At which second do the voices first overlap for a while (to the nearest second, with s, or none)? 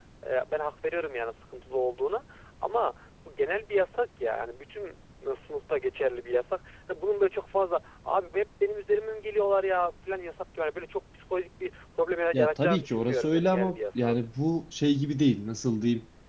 12 s